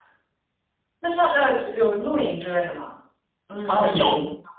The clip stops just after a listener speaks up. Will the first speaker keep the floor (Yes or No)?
No